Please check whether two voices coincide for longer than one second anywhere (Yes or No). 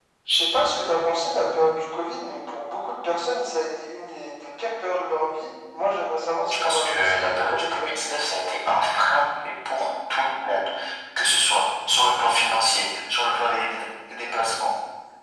Yes